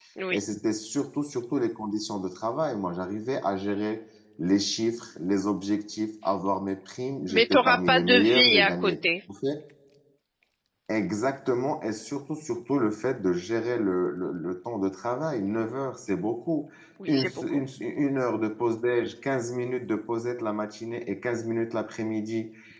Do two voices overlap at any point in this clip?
Yes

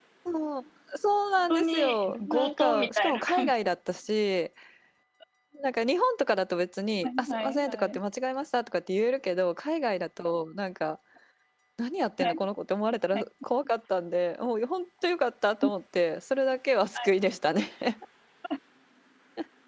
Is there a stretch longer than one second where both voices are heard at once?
Yes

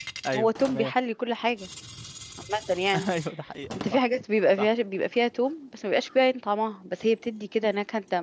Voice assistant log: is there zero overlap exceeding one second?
Yes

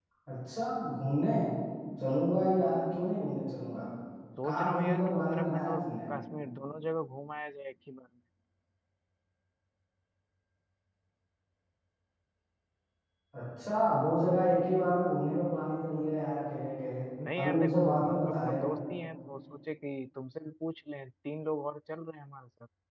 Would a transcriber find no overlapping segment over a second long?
No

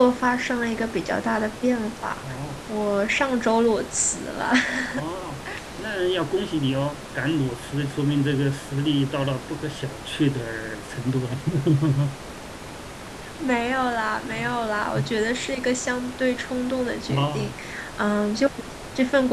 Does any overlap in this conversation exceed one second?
No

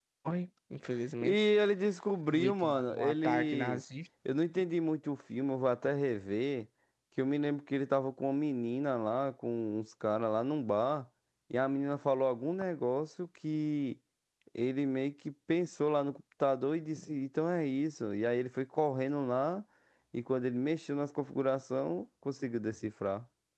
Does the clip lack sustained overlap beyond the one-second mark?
No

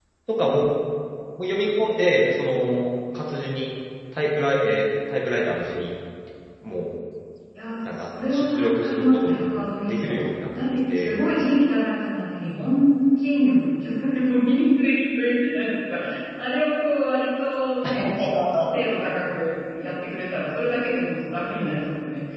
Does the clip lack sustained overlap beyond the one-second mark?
No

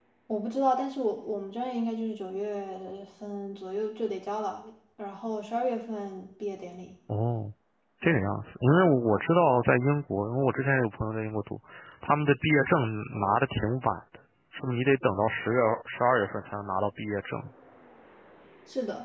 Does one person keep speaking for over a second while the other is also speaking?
No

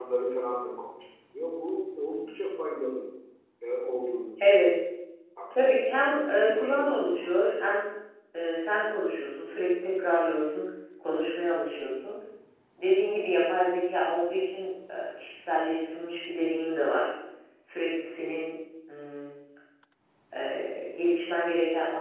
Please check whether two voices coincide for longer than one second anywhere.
Yes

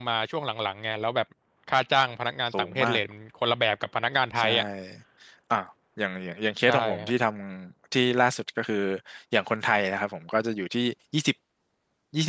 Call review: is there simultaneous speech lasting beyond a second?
No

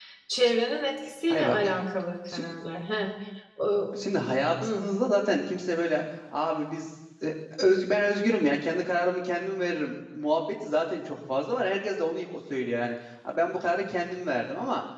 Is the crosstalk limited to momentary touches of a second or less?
Yes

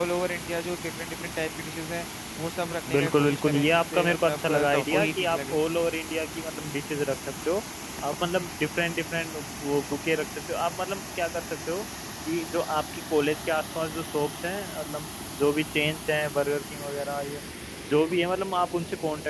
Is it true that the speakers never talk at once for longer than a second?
No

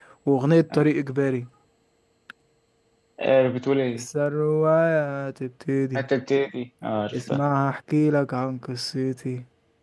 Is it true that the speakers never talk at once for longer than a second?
Yes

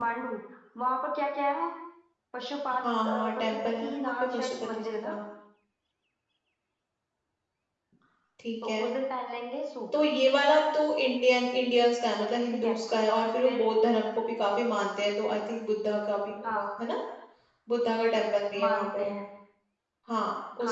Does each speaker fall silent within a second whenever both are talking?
No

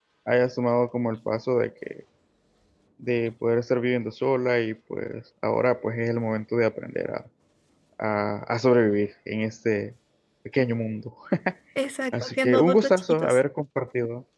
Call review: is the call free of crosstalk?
No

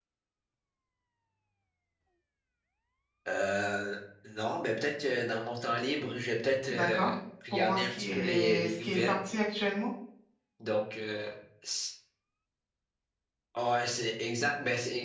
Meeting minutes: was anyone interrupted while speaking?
Yes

